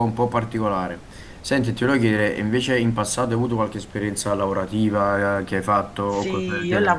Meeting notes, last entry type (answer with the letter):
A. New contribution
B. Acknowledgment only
A